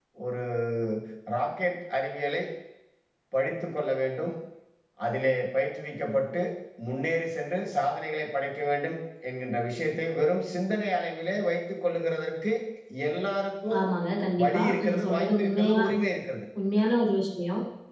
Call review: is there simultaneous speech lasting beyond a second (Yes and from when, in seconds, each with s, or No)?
Yes, from 14.4 s